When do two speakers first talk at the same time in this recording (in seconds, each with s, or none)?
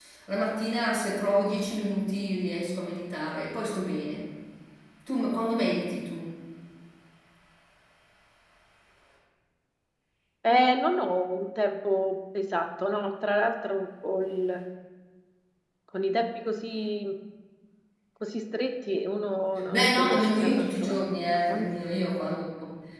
19.7 s